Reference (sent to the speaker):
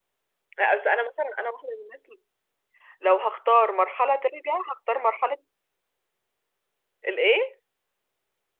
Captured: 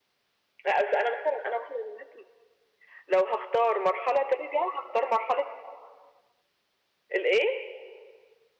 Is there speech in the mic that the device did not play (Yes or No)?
No